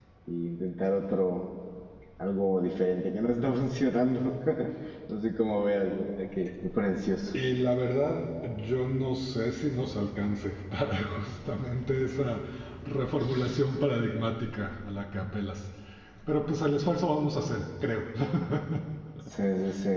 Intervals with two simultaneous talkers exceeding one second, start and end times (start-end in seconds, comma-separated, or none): none